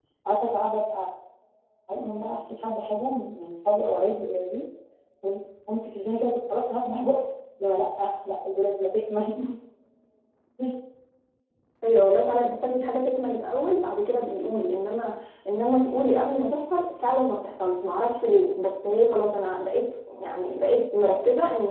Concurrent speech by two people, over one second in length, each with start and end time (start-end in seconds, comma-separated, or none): none